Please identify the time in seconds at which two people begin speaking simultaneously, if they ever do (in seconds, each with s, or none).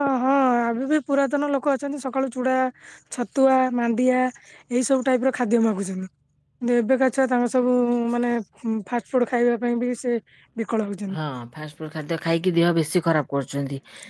none